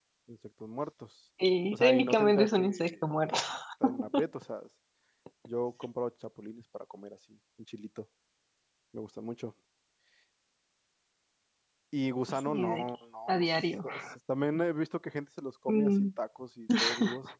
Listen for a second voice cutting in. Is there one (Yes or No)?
Yes